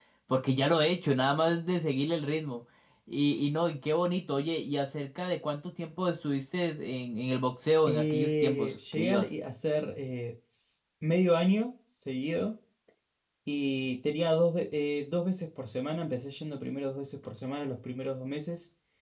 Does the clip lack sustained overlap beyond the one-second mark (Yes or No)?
No